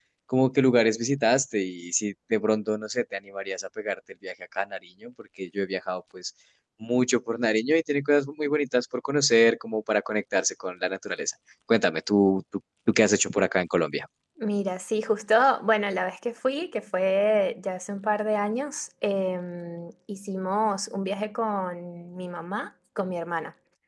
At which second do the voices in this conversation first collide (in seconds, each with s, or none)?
none